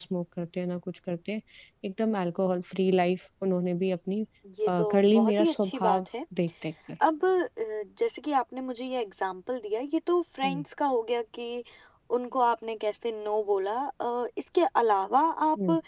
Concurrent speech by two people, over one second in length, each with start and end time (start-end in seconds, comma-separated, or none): 4.7-6.0